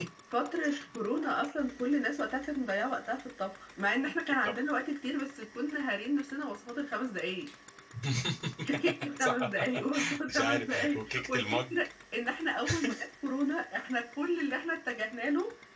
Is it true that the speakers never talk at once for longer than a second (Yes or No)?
No